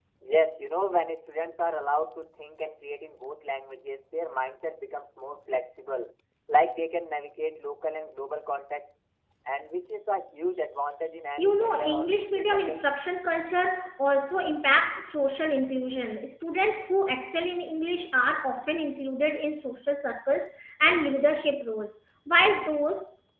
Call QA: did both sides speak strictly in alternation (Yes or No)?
No